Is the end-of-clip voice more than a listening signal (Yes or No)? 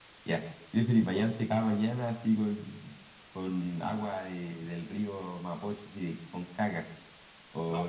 No